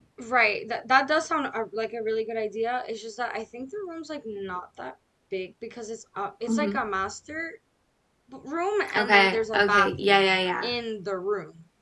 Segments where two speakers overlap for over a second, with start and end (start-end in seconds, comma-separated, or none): 8.9-10.7